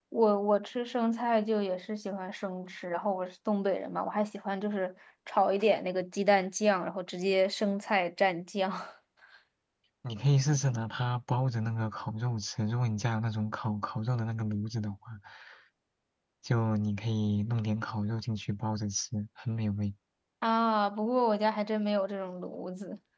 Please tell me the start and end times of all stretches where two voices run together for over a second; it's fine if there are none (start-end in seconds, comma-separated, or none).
none